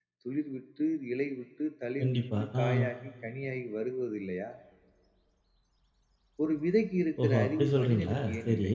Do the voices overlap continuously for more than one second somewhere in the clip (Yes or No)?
Yes